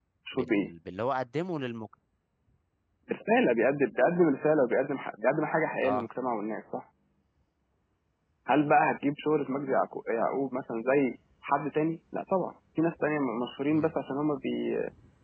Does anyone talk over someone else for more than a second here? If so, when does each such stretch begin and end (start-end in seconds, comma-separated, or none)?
none